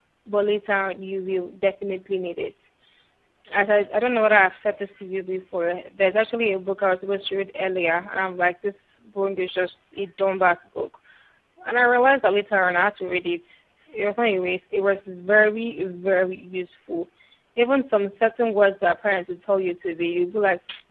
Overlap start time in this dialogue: none

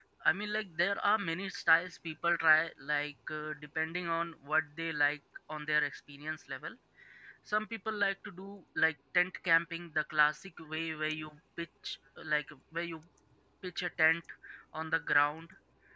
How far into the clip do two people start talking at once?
none

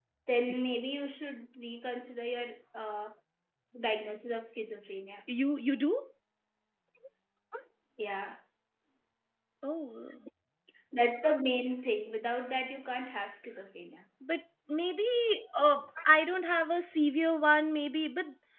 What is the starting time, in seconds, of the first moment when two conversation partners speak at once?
none

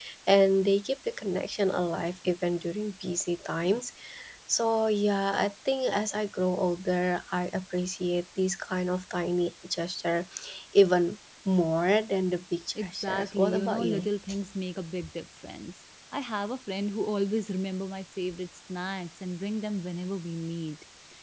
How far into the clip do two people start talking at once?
13 s

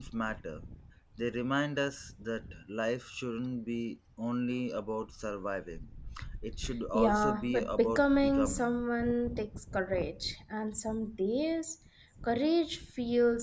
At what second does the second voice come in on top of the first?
7 s

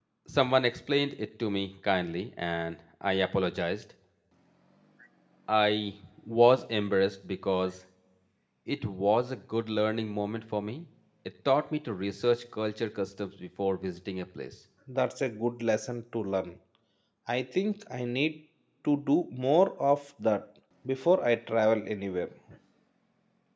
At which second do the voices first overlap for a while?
none

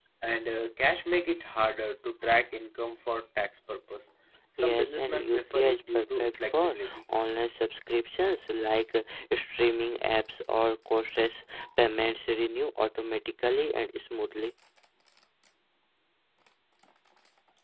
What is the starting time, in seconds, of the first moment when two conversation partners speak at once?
5 s

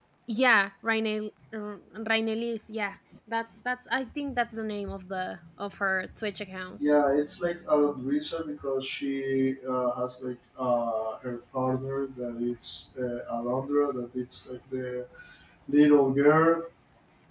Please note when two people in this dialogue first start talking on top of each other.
none

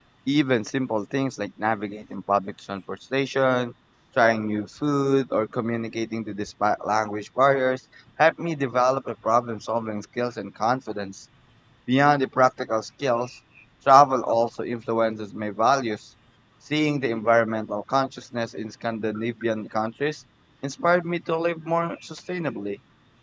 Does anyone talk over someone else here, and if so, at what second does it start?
none

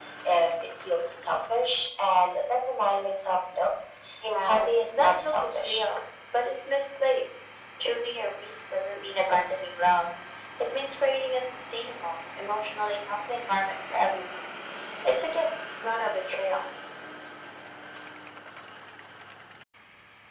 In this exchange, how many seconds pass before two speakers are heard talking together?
4 s

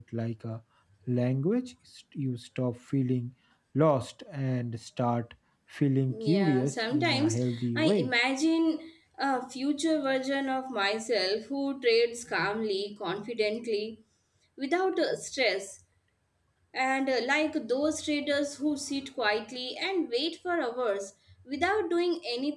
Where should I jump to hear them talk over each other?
6 s

